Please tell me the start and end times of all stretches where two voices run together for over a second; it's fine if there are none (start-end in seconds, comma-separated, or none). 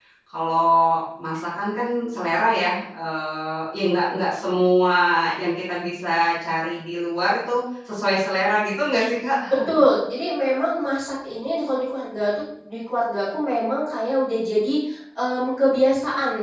none